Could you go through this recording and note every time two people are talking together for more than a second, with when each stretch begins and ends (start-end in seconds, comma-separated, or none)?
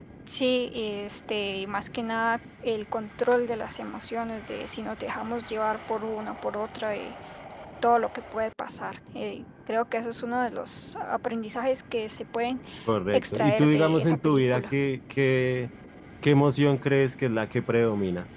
13.1-14.6